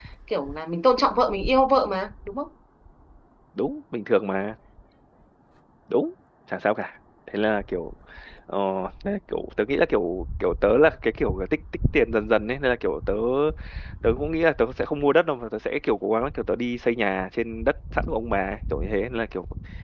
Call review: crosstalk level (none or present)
none